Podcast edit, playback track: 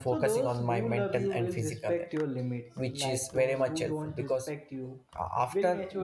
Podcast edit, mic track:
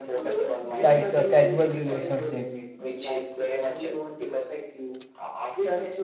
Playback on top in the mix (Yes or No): No